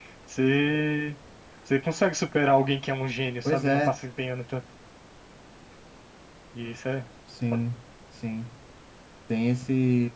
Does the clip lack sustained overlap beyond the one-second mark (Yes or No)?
Yes